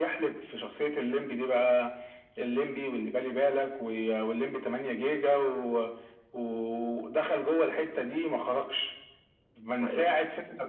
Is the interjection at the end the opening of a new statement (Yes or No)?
No